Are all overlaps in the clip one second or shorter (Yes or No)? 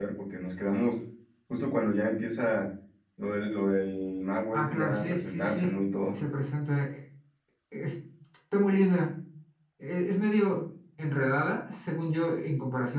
No